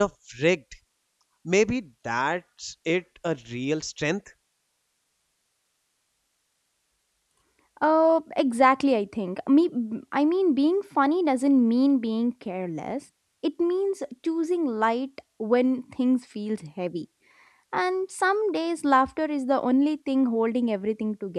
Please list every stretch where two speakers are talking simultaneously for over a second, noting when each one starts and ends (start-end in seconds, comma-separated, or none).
none